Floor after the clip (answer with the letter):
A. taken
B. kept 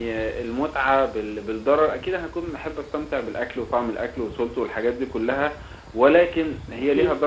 B